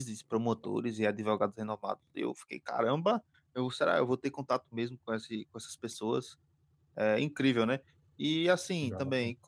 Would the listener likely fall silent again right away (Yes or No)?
Yes